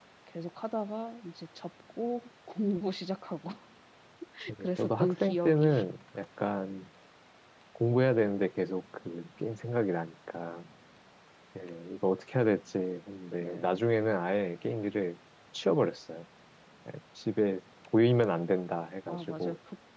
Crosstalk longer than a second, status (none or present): present